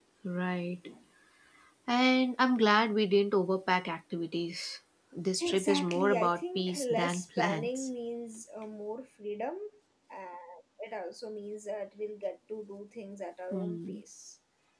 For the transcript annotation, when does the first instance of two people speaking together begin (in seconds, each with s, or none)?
5.4 s